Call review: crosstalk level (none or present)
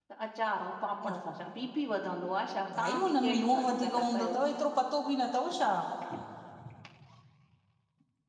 present